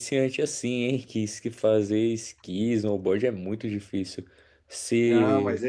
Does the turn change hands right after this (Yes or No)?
Yes